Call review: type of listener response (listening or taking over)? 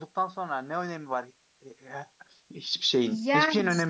taking over